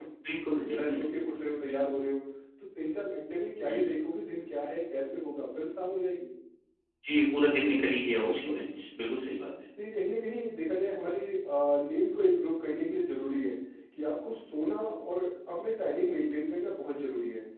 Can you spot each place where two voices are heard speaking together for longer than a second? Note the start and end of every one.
none

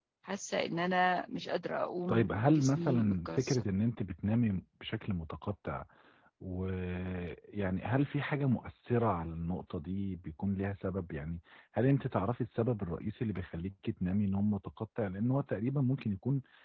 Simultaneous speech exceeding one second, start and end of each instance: 2.1-3.6

